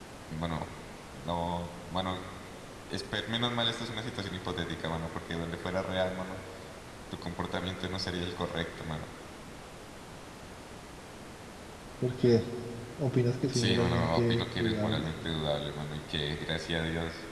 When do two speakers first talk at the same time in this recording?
13.5 s

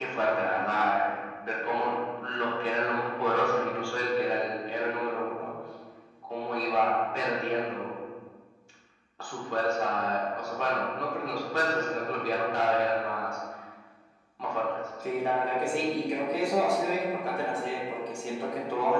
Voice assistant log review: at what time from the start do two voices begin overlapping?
none

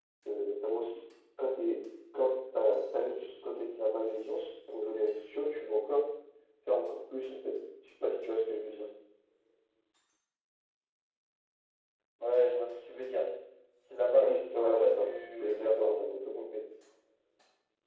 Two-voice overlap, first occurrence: 14.2 s

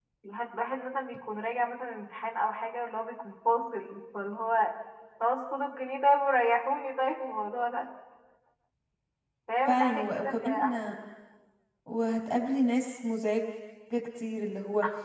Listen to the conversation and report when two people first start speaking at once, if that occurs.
9.7 s

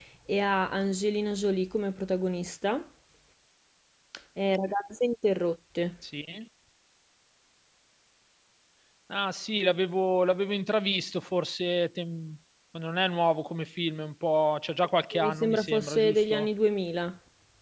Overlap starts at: 15.1 s

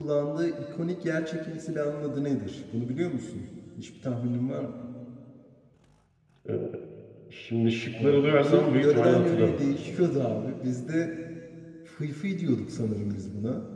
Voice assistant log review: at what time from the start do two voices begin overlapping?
8.0 s

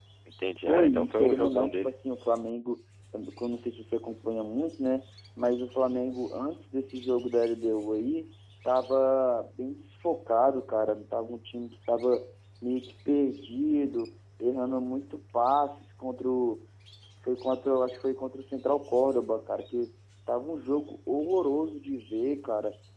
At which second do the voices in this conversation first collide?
0.7 s

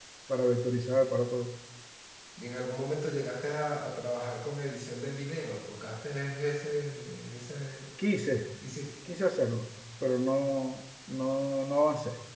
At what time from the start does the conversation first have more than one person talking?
none

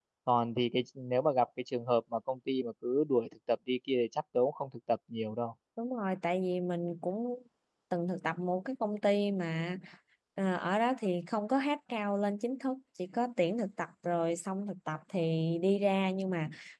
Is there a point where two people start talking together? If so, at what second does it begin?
none

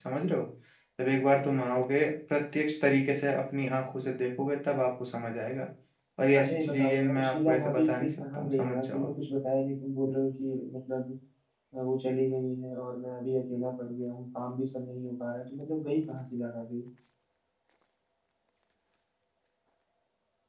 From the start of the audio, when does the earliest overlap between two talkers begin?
6.4 s

